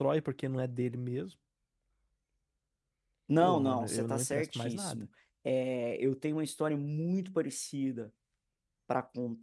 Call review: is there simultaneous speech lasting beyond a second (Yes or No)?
Yes